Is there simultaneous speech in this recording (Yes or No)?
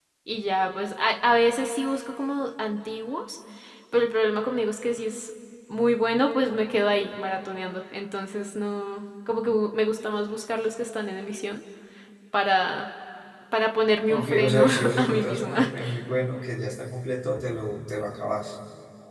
Yes